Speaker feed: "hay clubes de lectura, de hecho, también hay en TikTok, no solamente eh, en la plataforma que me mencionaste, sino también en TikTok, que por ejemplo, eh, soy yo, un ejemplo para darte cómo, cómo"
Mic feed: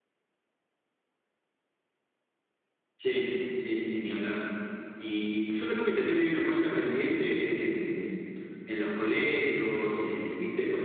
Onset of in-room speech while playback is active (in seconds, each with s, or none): 3.0 s